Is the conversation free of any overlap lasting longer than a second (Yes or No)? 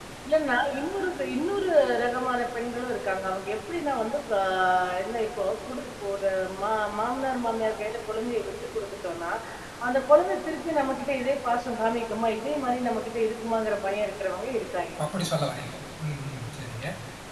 Yes